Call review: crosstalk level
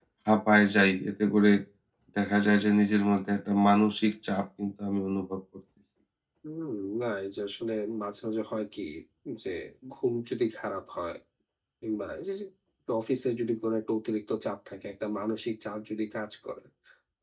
none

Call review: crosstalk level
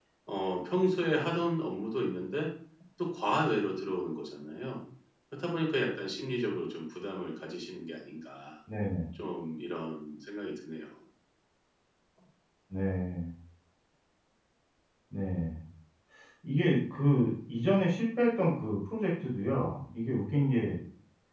none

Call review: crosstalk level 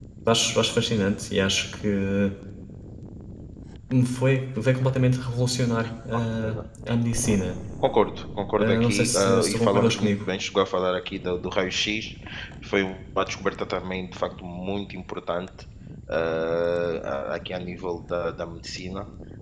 present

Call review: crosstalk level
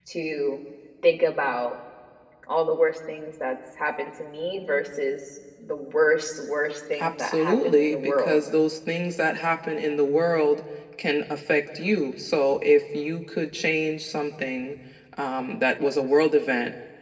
present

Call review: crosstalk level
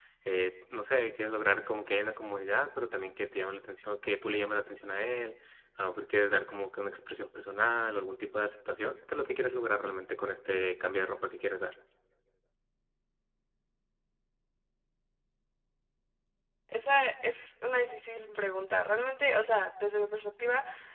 none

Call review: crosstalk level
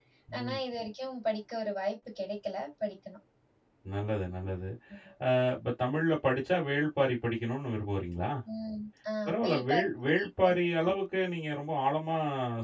present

